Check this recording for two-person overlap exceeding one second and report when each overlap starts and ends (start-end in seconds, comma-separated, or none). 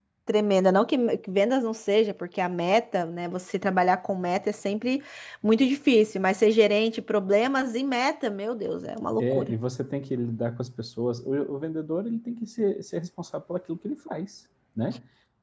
none